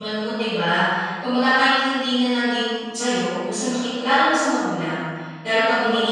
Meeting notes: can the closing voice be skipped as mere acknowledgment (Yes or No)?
Yes